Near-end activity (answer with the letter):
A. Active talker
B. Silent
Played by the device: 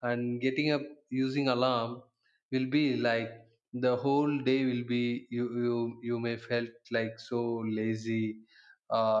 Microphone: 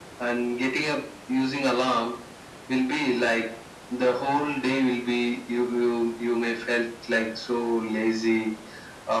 B